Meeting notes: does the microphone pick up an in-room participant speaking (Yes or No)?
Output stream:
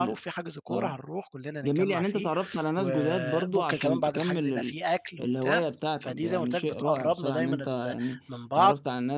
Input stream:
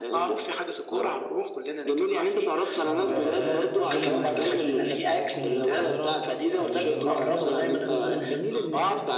Yes